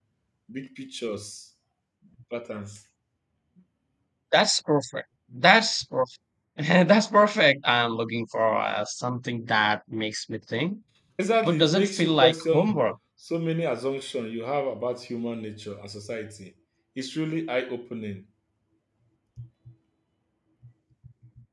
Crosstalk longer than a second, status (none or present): present